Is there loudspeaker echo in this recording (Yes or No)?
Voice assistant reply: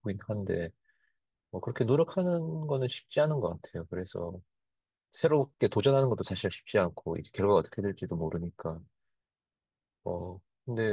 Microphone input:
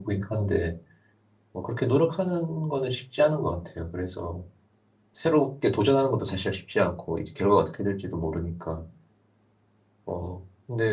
Yes